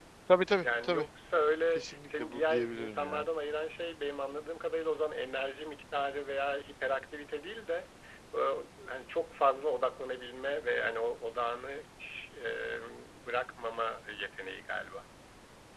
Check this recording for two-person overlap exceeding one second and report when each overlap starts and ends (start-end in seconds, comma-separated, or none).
1.8-3.2